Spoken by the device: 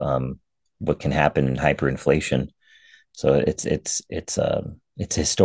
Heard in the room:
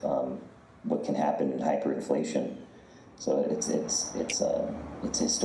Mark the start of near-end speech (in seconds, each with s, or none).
none